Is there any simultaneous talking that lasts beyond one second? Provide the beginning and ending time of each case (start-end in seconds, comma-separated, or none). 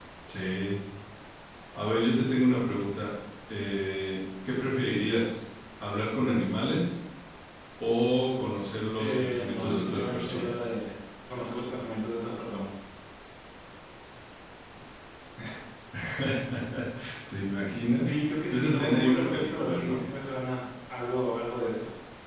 9.0-10.5, 18.0-20.0